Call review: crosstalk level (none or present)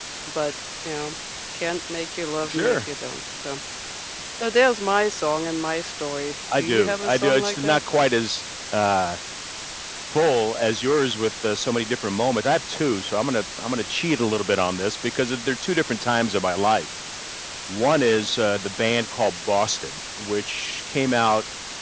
present